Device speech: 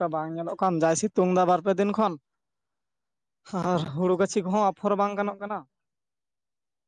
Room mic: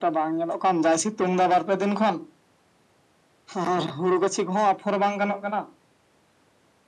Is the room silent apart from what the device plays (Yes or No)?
Yes